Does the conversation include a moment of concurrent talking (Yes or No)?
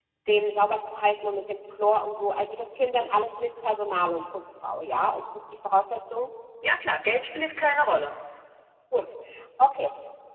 No